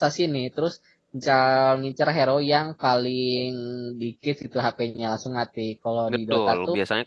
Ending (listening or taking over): taking over